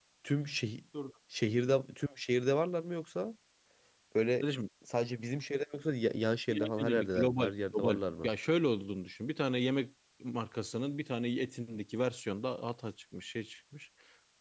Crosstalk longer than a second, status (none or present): present